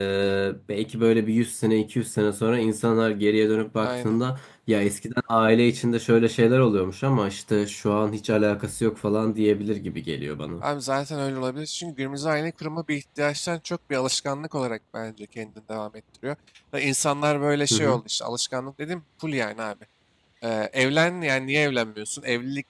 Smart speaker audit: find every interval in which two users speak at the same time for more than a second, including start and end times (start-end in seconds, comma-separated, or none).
none